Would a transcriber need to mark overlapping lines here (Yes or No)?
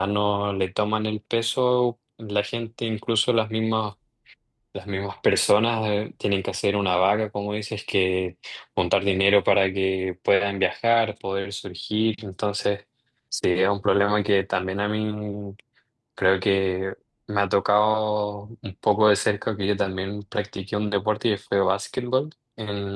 No